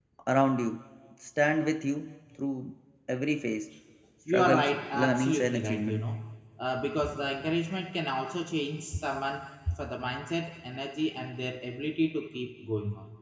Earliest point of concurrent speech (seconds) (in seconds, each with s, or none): 4.3 s